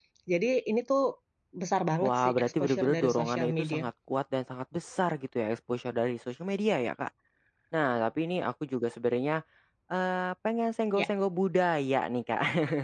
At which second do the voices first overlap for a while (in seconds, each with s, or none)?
2.0 s